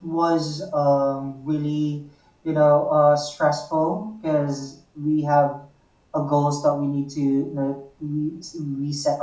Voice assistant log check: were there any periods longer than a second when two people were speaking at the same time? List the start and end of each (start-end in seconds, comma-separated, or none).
none